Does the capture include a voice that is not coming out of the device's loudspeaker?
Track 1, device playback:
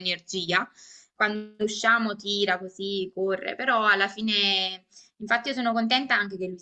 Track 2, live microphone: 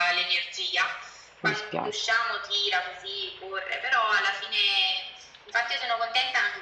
Yes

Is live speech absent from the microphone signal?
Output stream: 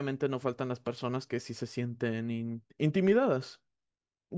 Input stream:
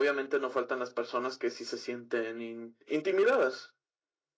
Yes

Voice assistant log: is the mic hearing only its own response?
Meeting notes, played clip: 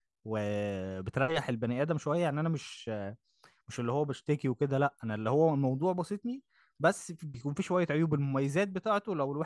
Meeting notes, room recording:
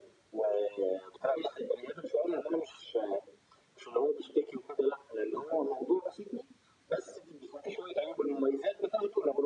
Yes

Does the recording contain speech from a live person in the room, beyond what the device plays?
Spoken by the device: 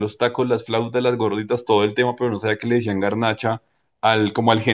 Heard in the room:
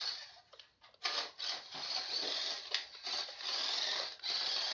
No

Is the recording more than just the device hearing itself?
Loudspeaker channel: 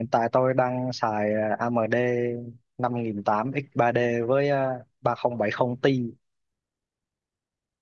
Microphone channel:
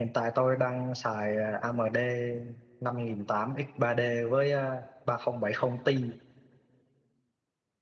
No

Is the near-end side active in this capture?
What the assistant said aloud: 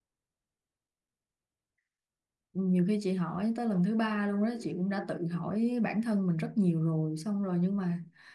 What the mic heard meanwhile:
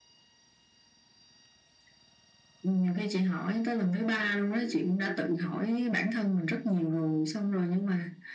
No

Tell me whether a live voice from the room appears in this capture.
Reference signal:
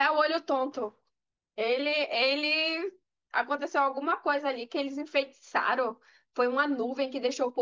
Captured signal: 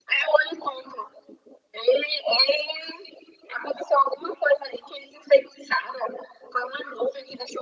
No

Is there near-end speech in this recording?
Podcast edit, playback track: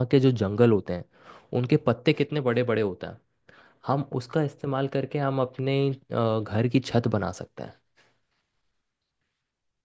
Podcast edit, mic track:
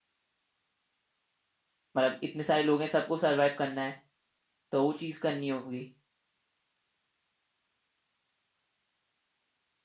Yes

